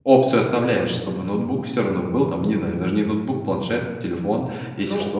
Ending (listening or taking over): taking over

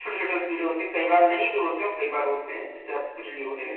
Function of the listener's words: taking over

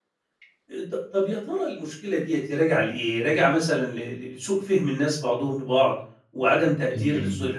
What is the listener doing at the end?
listening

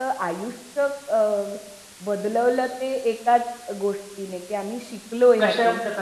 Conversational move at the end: listening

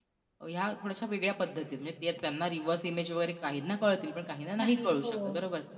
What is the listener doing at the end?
listening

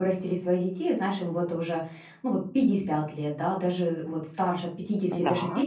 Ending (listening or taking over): listening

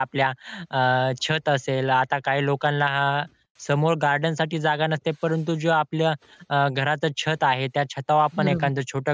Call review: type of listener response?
listening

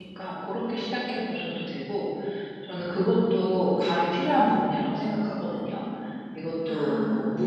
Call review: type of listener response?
listening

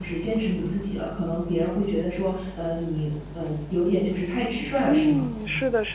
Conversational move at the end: taking over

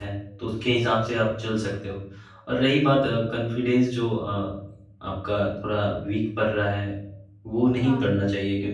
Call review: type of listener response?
listening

